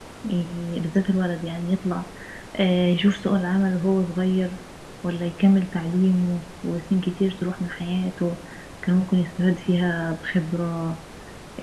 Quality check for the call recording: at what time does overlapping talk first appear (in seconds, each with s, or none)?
none